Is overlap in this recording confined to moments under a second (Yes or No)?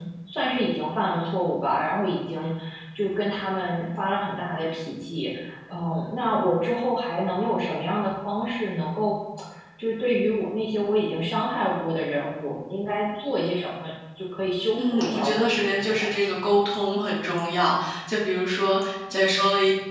No